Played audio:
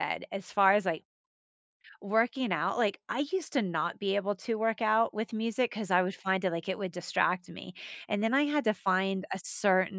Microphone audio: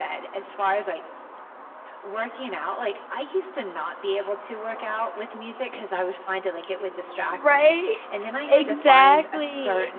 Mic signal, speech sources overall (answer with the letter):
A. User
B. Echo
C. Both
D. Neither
C